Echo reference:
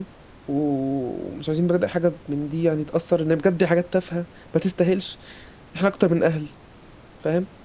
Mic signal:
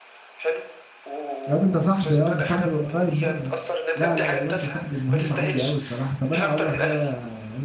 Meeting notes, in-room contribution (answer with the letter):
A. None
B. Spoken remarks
B